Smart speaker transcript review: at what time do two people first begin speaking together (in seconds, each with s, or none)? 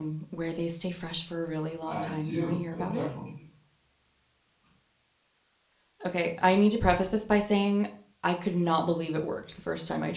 1.9 s